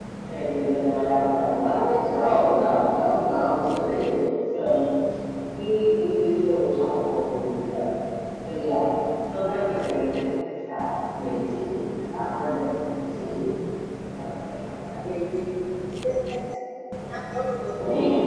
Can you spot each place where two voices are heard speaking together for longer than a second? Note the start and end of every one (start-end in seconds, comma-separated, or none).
none